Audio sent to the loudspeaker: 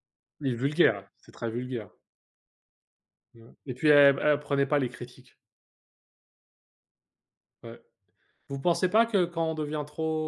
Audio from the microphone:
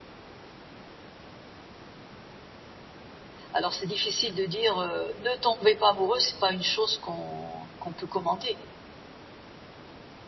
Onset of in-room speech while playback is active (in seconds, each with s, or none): 3.5 s